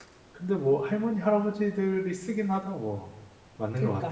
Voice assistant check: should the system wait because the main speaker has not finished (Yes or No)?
No